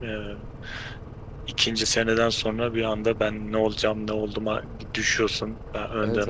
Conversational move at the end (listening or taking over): taking over